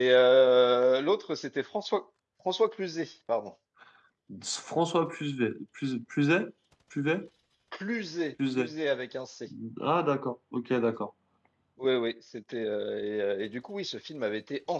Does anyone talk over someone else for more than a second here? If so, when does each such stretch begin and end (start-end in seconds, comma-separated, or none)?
none